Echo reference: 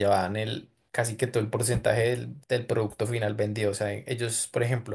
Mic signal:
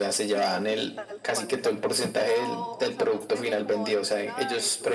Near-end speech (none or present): present